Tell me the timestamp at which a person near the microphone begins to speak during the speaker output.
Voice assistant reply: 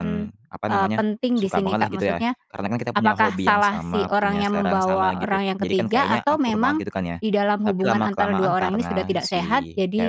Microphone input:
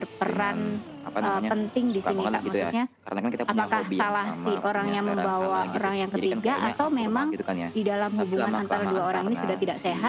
none

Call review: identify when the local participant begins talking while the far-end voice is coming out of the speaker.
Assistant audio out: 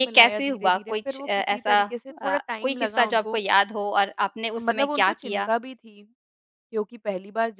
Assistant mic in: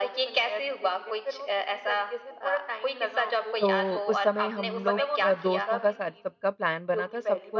3.6 s

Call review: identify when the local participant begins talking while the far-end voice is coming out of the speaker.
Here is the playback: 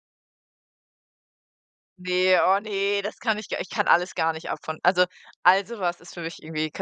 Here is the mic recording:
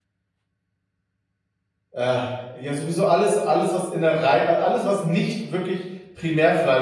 1.9 s

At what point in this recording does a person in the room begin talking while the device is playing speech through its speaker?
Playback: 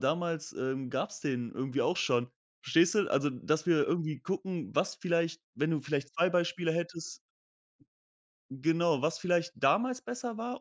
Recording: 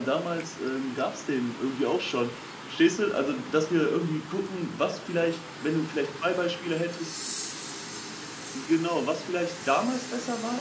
none

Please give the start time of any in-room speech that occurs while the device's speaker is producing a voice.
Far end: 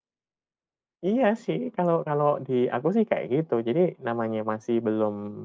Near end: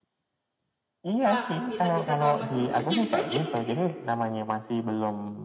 1.3 s

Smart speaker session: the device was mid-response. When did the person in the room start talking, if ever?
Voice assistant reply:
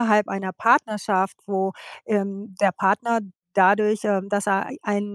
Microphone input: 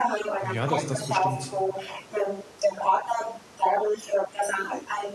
0.5 s

